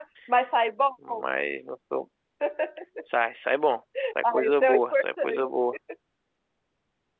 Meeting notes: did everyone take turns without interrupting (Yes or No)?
No